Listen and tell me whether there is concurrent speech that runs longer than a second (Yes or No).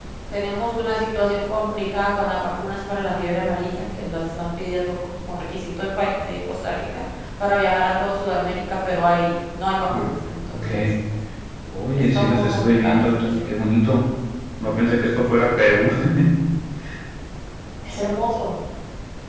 Yes